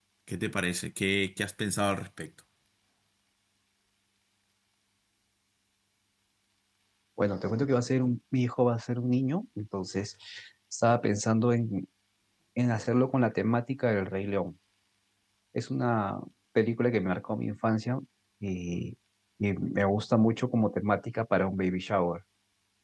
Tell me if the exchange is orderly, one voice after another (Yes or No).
Yes